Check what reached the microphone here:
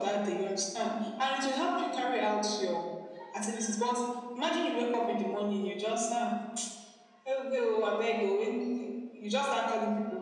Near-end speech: none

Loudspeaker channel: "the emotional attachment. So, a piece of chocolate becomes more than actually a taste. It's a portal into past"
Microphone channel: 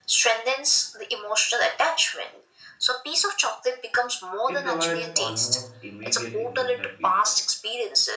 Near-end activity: present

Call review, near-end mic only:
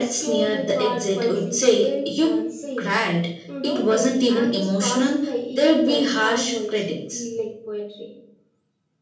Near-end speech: none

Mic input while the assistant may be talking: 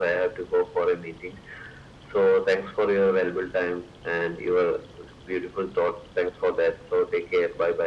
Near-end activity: none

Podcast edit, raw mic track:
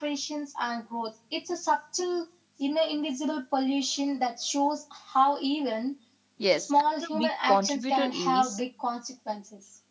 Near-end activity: present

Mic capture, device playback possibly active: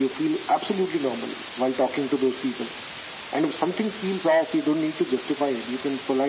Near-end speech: none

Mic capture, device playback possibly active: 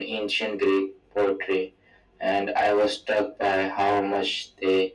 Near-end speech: none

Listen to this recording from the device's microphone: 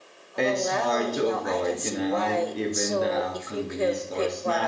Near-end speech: present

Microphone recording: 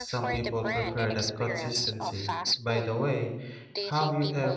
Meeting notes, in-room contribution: present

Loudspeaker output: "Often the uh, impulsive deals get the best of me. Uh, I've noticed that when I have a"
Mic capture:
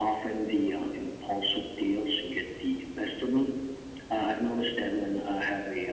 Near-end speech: none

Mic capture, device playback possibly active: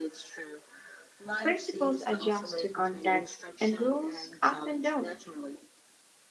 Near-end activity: present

